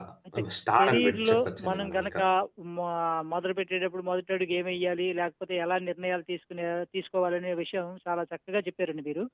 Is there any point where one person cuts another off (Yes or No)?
Yes